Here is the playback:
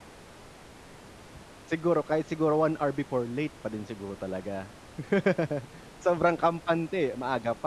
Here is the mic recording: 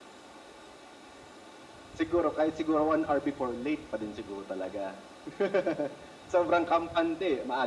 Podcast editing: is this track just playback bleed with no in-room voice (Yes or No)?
Yes